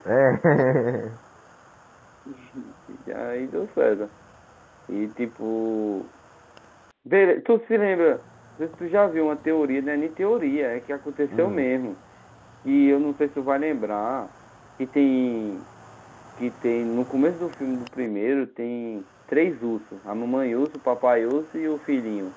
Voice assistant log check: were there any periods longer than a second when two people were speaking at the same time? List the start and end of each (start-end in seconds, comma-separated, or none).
none